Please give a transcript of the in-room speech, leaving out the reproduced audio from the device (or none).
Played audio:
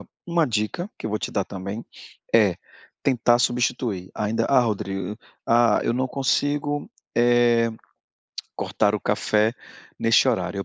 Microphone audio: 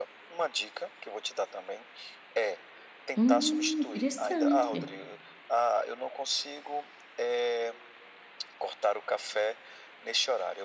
Hum, interessante.